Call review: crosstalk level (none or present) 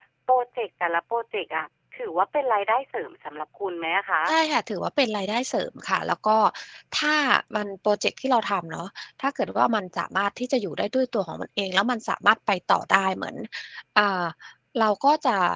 none